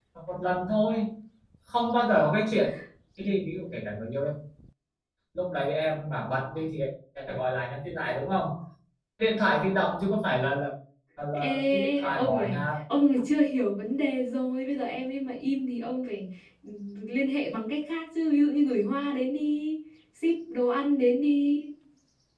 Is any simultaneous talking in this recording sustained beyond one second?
Yes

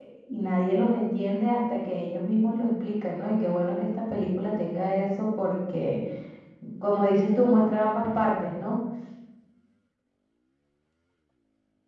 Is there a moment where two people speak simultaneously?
No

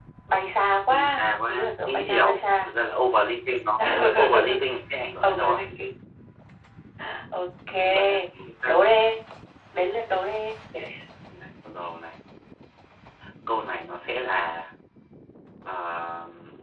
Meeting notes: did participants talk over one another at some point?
Yes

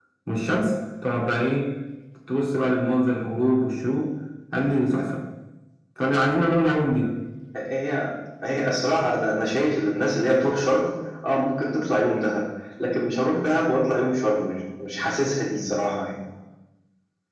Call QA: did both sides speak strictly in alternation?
Yes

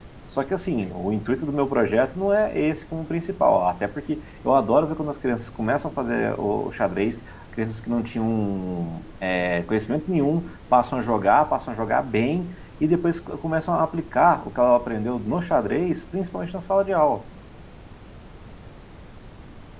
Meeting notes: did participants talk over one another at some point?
No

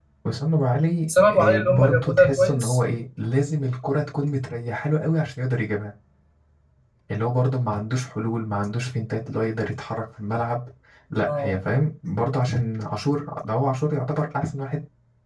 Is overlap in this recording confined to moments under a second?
No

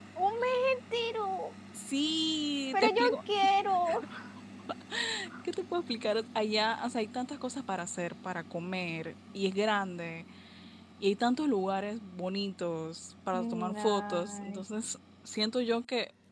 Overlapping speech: Yes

